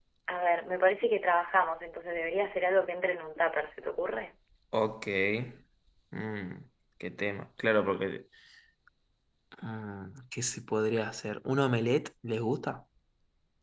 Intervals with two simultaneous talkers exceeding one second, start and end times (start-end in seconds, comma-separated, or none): none